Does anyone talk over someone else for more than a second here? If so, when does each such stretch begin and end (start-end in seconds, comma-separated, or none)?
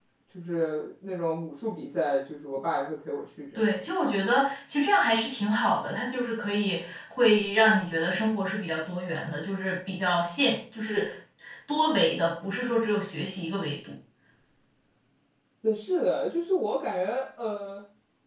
none